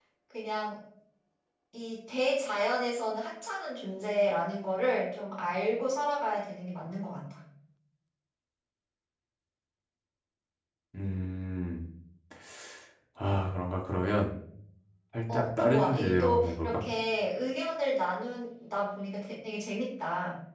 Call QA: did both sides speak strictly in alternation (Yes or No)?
No